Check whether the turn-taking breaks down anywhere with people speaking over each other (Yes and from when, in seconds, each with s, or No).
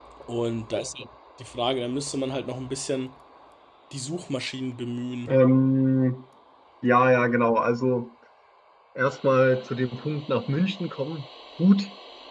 No